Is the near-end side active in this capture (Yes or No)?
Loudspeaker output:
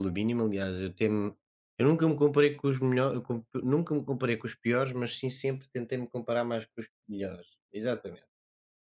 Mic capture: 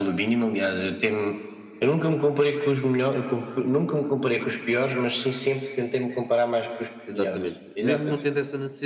Yes